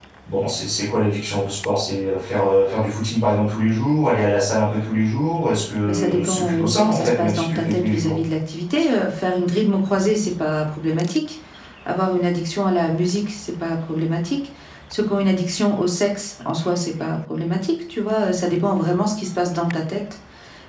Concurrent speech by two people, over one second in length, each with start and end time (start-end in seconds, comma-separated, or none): 5.9-8.2